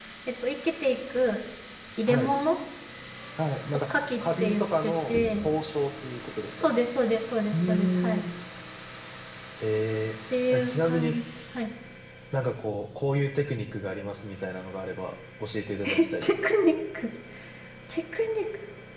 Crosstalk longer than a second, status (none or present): present